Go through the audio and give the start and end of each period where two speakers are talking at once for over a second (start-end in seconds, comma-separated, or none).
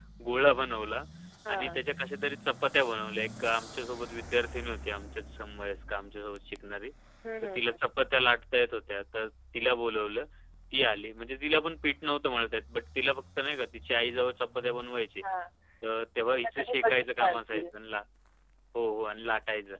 16.3-17.6